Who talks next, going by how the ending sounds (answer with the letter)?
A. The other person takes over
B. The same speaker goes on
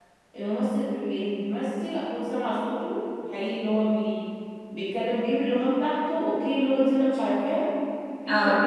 B